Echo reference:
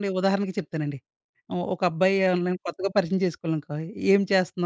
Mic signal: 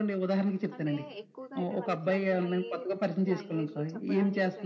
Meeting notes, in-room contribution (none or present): present